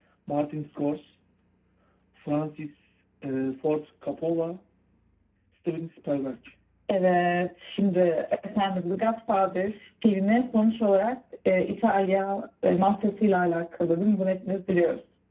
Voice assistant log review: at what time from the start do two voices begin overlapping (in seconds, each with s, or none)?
none